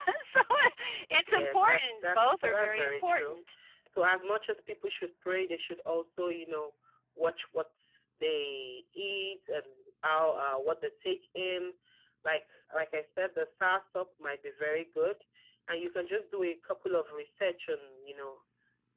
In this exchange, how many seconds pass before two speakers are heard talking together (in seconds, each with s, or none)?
1.3 s